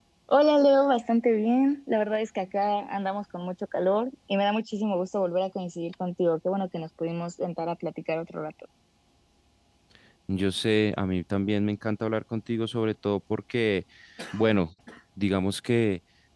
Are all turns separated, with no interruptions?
Yes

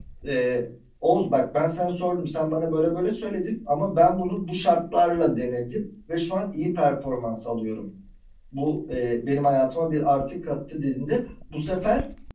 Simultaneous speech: No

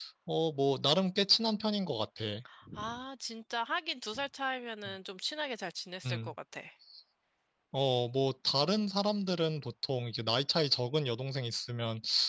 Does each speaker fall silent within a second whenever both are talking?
Yes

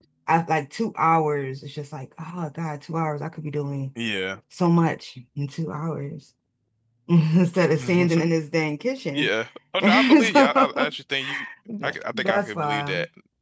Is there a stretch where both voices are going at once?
Yes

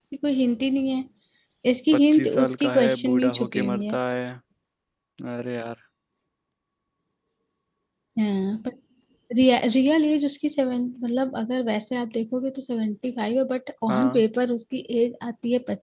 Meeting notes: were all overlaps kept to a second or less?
No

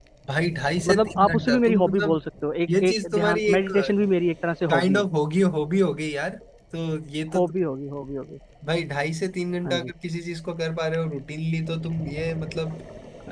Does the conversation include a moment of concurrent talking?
Yes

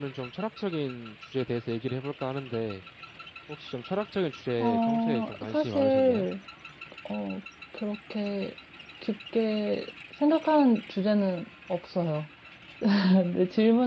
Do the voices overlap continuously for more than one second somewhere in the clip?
Yes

